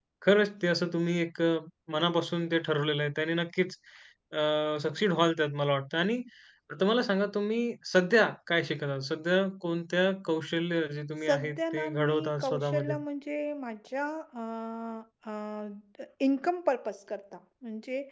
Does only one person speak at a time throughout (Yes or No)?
No